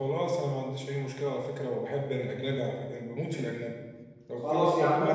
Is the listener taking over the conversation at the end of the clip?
Yes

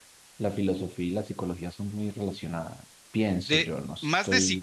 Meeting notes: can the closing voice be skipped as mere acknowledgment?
No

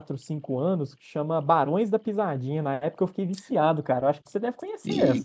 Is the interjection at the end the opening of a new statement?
Yes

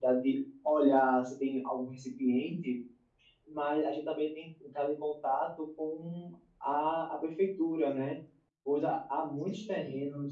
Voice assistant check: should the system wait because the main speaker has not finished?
Yes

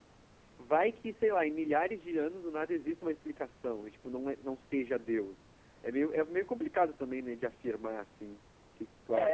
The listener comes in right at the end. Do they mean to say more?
Yes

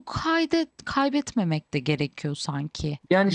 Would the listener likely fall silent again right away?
No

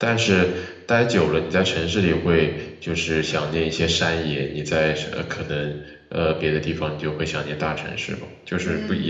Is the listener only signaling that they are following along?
No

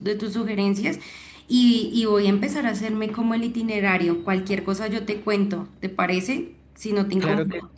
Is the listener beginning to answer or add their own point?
Yes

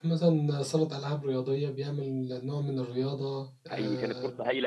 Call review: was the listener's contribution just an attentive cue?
No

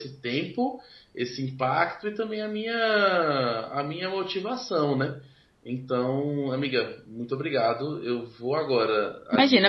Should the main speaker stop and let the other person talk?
Yes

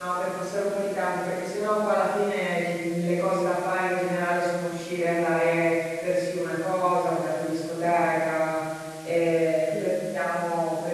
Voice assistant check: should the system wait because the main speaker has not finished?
Yes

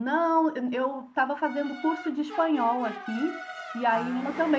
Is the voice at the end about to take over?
No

